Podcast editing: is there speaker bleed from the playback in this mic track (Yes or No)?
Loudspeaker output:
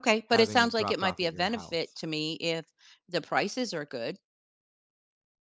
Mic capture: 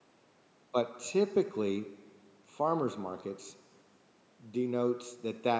No